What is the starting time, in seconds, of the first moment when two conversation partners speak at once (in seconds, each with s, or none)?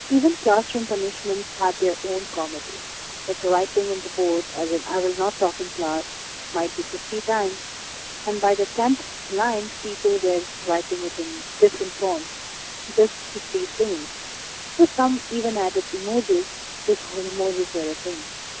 none